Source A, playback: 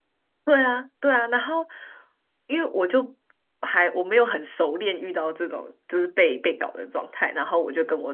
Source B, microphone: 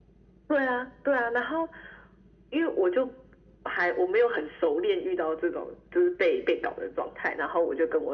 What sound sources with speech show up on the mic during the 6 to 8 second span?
echo only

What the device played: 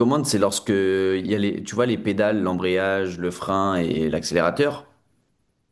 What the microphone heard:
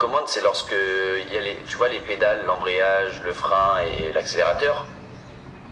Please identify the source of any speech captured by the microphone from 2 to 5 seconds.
echo only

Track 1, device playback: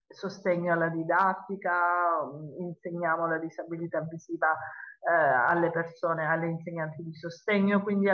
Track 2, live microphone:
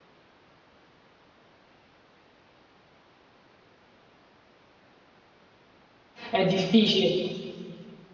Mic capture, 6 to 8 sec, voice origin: user only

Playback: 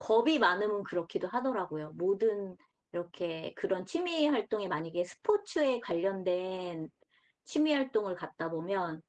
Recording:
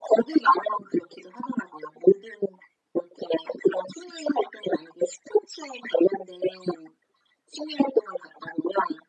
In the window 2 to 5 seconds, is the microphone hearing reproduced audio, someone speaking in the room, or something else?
echo only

